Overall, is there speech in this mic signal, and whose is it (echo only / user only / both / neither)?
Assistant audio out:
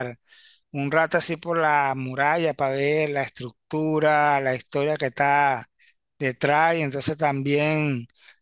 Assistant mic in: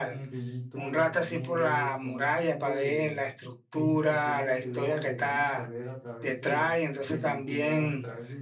both